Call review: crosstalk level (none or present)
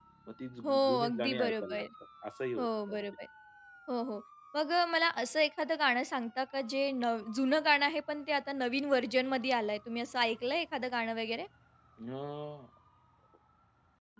present